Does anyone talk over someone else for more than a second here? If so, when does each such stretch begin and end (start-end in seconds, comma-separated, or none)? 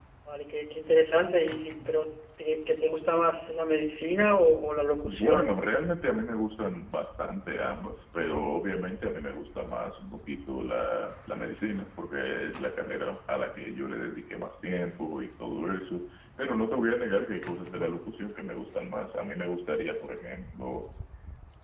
none